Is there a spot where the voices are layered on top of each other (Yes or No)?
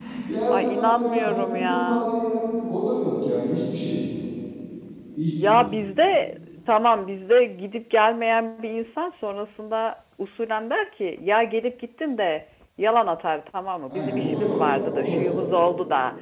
Yes